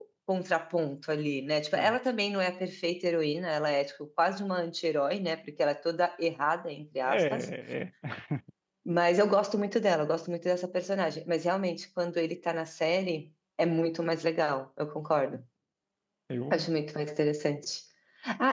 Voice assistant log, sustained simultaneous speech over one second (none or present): none